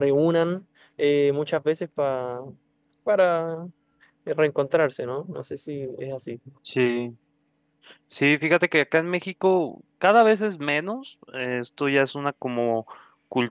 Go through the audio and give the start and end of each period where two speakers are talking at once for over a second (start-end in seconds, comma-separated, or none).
none